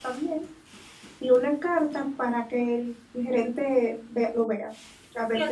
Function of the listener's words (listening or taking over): taking over